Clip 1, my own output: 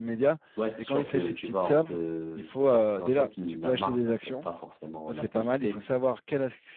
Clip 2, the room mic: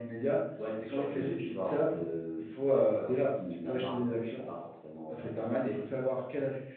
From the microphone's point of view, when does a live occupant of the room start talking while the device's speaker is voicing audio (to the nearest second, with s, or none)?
none